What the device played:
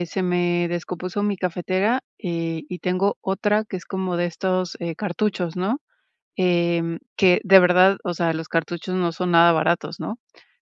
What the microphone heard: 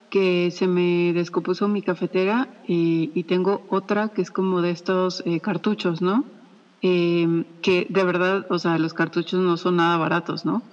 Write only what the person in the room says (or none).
none